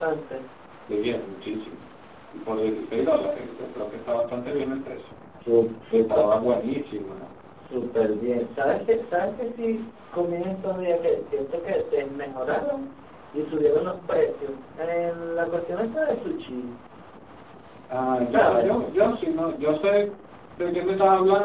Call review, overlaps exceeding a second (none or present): none